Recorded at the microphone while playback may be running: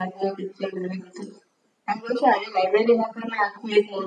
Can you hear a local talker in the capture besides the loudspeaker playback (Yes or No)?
No